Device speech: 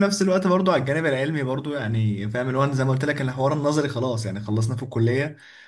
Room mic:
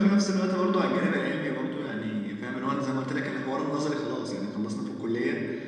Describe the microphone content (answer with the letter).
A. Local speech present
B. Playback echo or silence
B